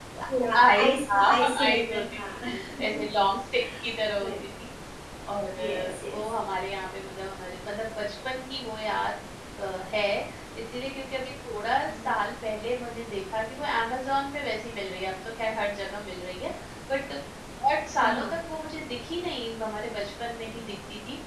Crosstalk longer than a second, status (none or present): present